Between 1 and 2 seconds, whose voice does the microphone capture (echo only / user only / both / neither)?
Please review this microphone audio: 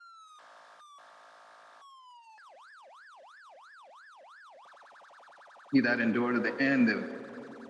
neither